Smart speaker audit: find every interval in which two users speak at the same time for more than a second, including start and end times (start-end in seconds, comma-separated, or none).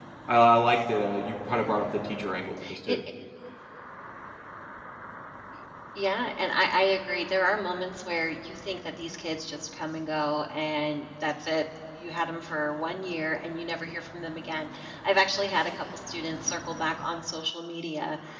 none